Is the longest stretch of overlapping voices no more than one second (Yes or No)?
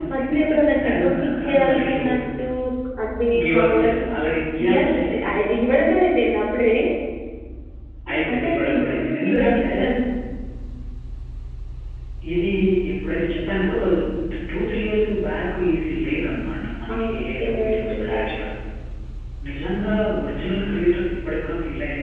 No